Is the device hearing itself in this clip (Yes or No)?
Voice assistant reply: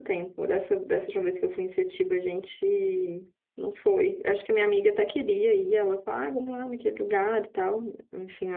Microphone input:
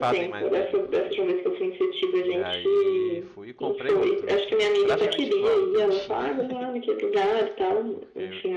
Yes